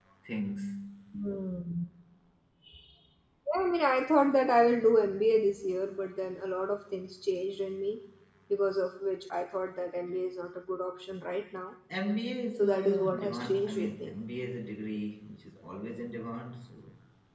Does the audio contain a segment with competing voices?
Yes, from 12.6 s

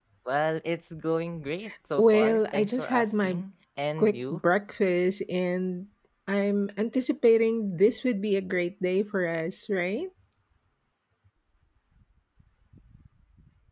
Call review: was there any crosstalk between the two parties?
Yes, from 2.0 s

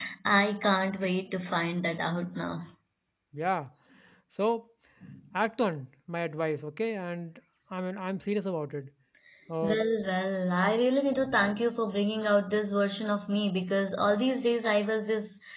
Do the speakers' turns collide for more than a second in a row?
No

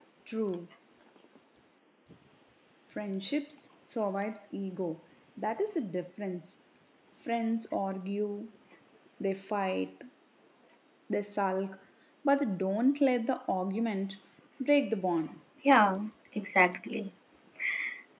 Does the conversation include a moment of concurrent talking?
No

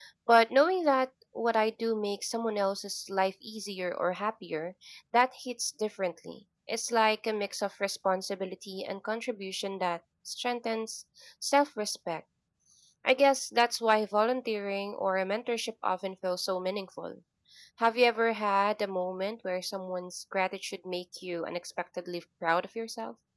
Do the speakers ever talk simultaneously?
No

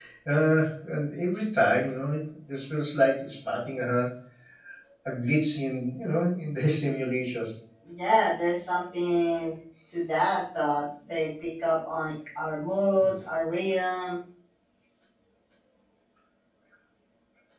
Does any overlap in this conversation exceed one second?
No

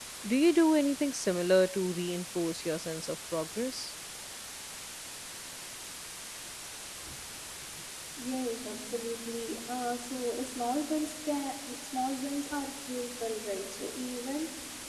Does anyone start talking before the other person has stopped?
No

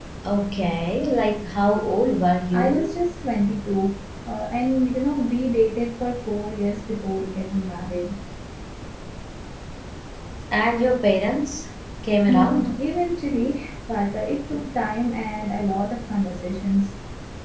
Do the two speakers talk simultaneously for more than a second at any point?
No

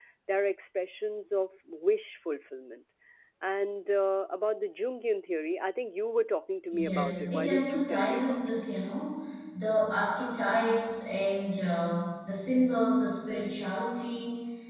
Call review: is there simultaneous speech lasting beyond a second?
Yes, from 6.7 s

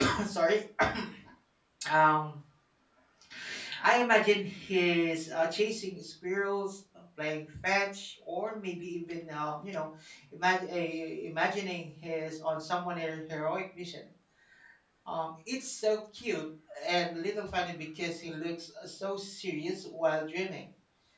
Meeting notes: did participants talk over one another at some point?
No

